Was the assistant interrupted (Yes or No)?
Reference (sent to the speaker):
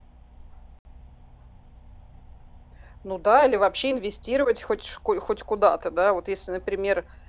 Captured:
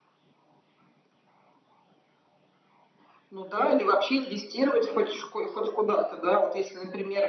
No